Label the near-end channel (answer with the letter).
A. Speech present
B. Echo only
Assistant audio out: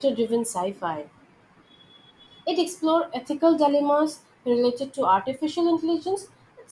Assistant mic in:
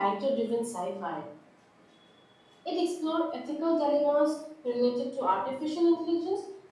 B